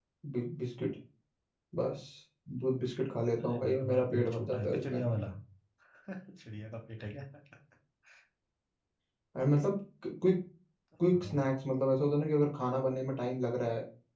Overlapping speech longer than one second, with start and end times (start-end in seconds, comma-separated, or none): 3.4-5.0